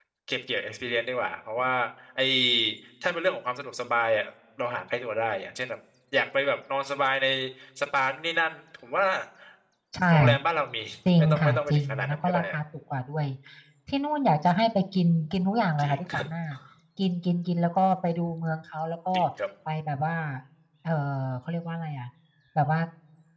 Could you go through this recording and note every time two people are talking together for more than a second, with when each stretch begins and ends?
11.2-12.4

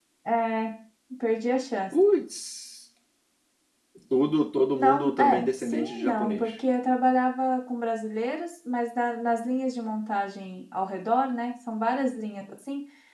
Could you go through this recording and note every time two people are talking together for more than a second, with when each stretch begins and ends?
4.8-6.6

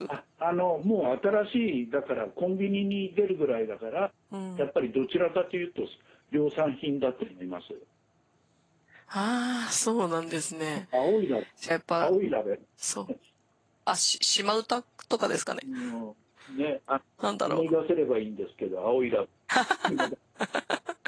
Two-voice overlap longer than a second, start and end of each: none

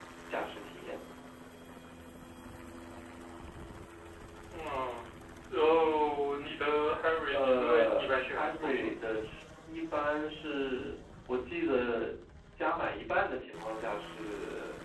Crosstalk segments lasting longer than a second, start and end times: 7.3-8.9

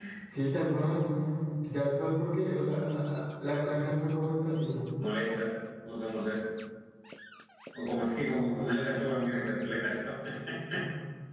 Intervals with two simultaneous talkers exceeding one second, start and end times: none

